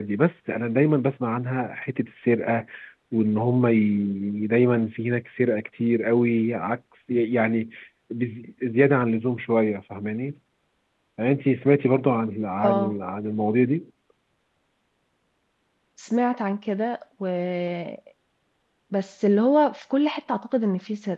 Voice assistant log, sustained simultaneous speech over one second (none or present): none